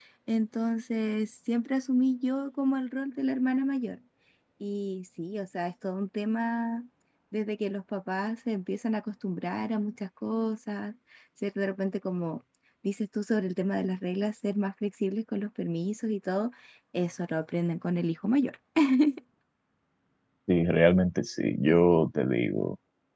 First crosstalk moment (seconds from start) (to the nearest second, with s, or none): none